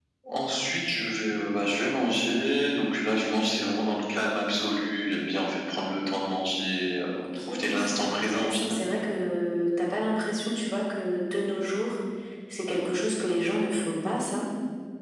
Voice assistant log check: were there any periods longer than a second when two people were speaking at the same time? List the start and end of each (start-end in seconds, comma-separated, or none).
7.5-9.0